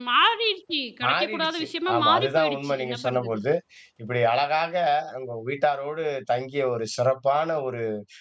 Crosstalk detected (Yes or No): Yes